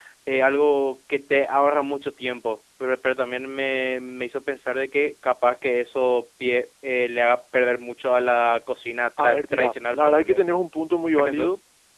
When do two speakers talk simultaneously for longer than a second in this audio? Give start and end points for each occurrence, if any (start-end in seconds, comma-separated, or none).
9.2-10.4